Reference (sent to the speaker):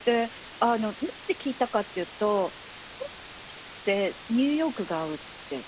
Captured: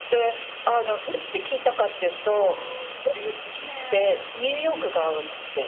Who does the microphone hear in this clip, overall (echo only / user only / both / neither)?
both